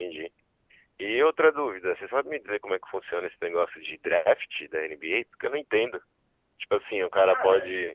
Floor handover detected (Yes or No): No